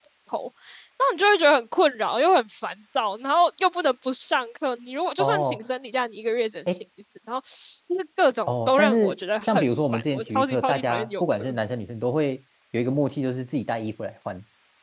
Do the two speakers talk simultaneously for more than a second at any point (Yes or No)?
Yes